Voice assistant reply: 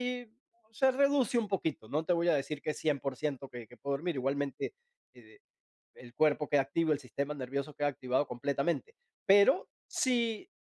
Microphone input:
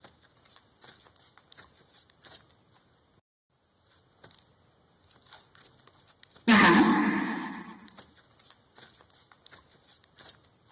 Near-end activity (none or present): present